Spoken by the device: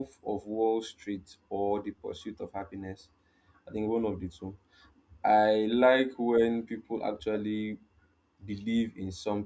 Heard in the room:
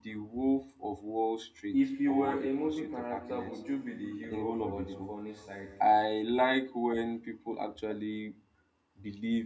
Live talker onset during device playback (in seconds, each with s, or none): 1.7 s